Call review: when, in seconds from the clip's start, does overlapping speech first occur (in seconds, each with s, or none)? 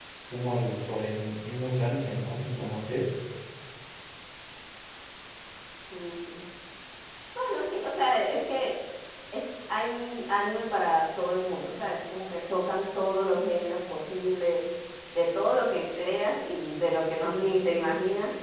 none